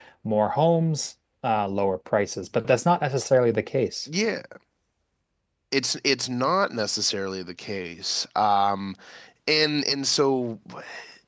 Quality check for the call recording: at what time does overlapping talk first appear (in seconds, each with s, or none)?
none